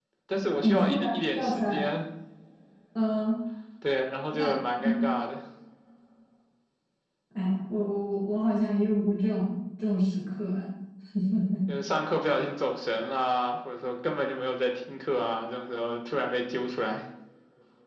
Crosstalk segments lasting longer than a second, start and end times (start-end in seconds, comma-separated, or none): 0.6-1.9